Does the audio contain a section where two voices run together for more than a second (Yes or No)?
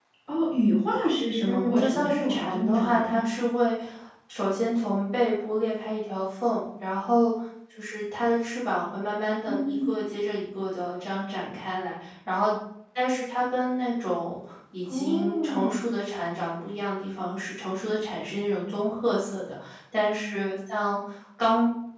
Yes